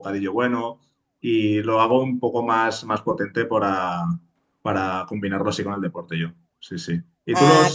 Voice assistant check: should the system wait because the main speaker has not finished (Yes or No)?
Yes